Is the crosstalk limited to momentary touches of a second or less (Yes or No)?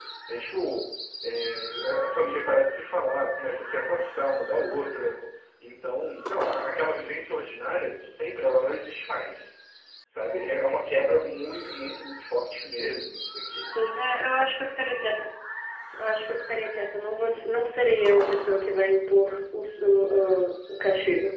Yes